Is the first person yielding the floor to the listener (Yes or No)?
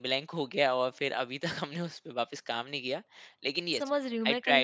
Yes